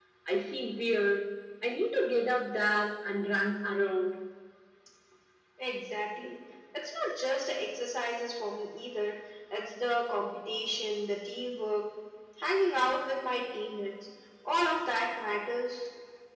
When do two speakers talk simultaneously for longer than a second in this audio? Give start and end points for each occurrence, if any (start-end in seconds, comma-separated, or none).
none